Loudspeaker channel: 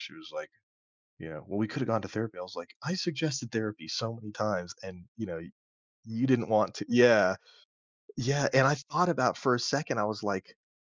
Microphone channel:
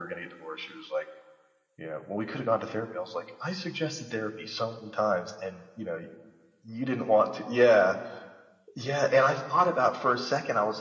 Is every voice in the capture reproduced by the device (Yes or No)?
Yes